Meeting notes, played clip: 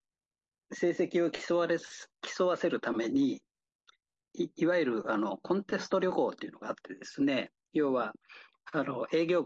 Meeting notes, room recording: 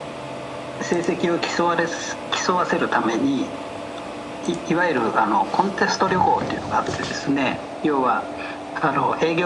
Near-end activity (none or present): none